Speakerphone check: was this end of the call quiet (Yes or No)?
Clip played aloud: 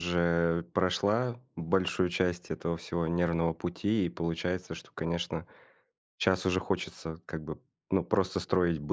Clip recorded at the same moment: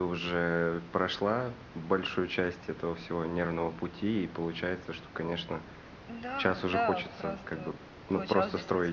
No